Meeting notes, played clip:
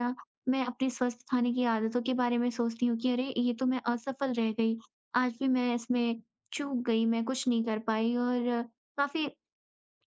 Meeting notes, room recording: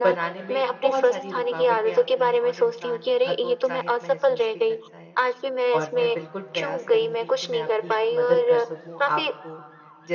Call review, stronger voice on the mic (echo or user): echo